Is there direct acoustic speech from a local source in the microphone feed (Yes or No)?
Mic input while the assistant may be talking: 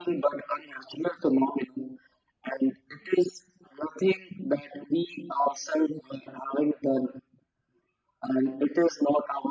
No